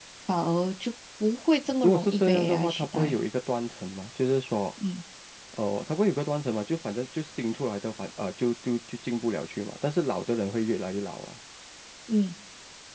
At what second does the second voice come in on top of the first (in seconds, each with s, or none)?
1.8 s